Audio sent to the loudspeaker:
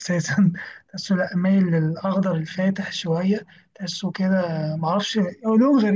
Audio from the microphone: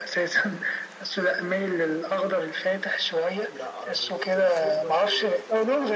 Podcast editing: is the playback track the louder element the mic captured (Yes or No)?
Yes